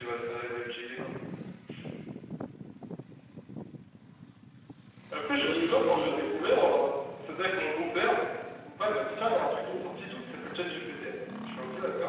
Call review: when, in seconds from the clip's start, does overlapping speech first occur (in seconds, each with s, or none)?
5.3 s